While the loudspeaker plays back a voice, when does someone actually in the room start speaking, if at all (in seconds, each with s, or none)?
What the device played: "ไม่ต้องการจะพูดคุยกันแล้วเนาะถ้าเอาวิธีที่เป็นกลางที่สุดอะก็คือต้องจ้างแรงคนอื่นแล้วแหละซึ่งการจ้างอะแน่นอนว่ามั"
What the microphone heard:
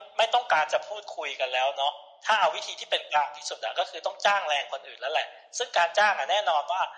none